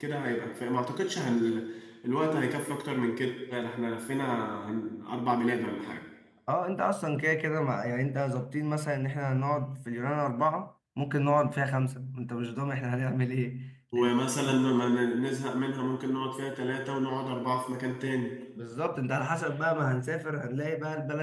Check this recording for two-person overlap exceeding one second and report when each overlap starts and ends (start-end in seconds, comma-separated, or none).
none